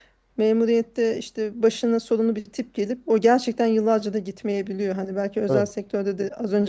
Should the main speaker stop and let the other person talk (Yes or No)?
No